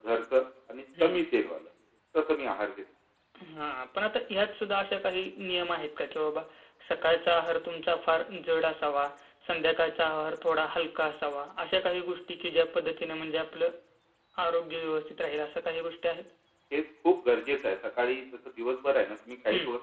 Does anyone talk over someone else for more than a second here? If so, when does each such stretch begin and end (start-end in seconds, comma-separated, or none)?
none